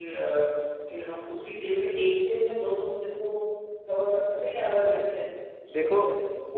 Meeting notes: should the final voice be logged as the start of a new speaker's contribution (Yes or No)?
Yes